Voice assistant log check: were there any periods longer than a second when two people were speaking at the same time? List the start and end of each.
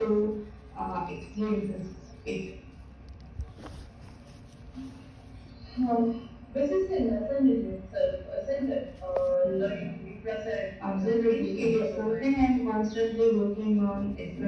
10.8-12.2

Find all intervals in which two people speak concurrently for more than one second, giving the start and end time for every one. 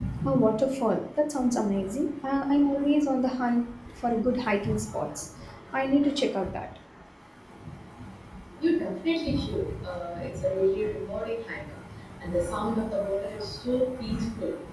none

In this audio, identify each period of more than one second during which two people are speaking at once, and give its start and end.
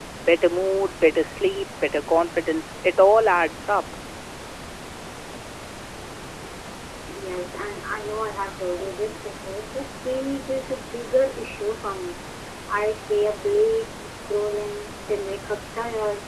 none

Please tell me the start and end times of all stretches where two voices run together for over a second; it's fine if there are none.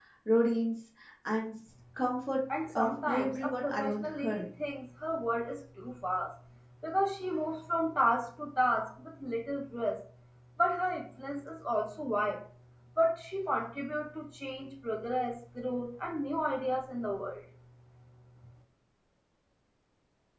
2.7-4.5

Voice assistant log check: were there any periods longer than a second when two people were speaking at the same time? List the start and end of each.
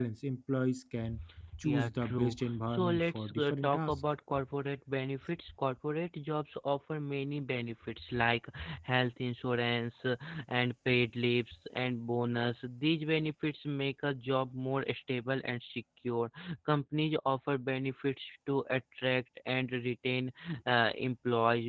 1.6-3.9

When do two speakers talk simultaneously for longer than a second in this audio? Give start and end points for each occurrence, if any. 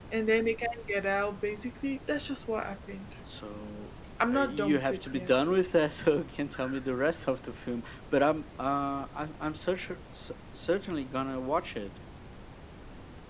4.3-5.6

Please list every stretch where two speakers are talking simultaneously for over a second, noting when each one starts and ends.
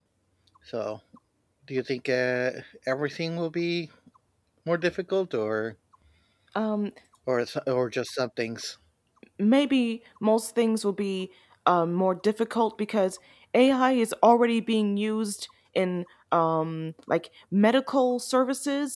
none

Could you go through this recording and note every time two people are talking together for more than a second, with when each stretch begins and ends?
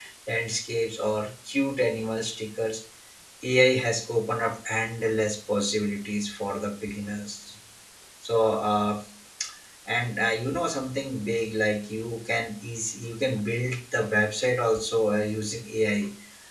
none

